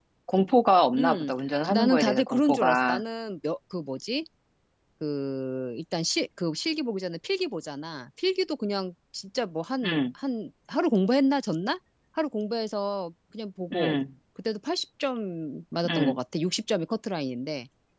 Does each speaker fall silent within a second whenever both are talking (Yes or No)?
No